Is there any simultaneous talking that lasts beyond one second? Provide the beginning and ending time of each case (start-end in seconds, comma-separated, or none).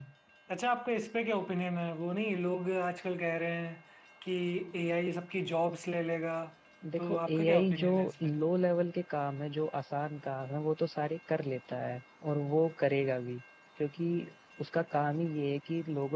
7.0-8.3